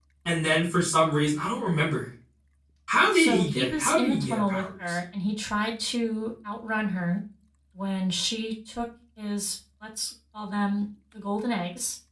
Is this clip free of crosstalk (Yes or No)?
No